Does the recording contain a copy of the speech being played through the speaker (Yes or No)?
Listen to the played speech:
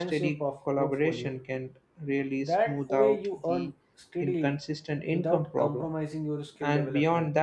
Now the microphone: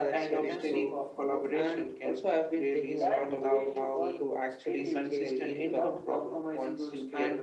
Yes